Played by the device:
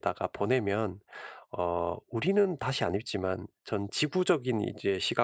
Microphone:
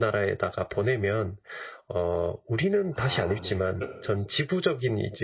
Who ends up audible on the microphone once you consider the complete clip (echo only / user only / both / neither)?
both